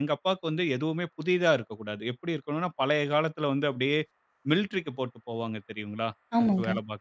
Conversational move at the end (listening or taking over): listening